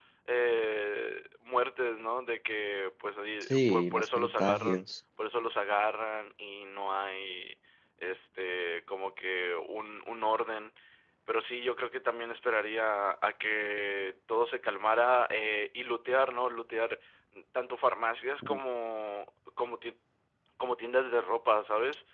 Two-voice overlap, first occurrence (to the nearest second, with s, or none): 4 s